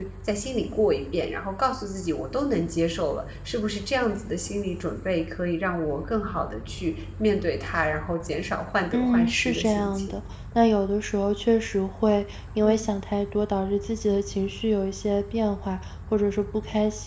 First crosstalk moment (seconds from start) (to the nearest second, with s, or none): 9 s